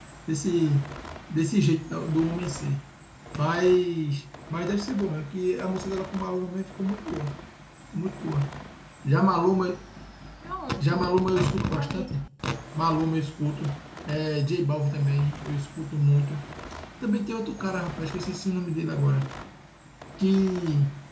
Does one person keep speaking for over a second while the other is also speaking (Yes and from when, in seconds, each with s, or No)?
Yes, from 10.8 s